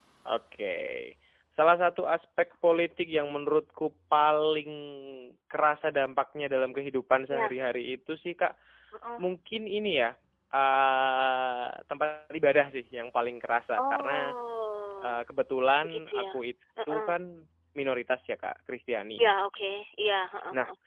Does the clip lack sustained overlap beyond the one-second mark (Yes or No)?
Yes